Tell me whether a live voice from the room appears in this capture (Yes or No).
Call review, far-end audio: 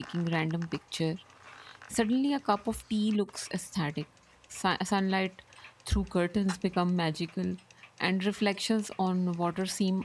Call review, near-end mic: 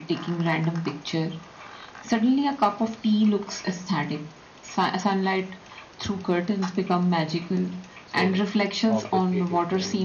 Yes